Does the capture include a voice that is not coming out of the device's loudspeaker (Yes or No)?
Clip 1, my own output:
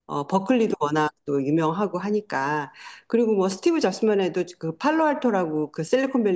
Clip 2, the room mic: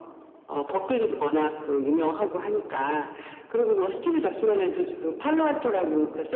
No